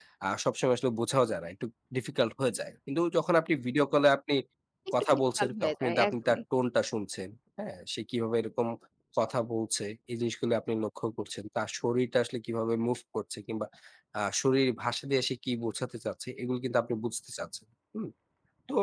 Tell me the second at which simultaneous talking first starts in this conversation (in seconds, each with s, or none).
5.0 s